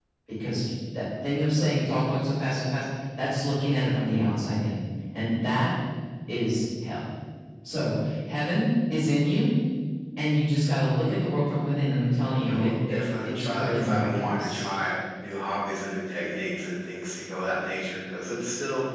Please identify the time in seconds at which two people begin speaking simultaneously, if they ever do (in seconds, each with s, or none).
12.5 s